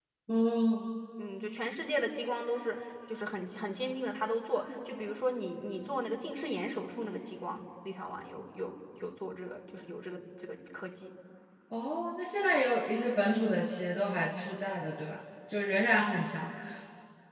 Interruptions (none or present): none